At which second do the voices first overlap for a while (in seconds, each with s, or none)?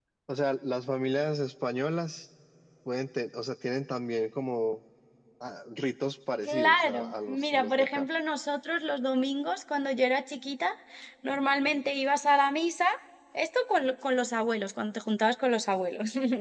6.5 s